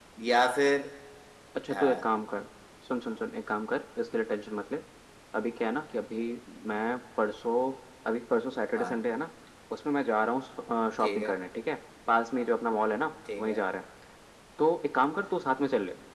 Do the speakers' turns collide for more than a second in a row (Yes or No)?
No